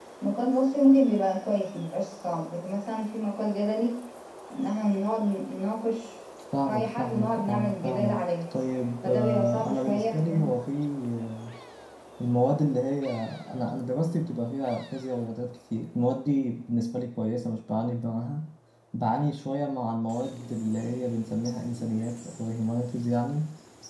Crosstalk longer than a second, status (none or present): present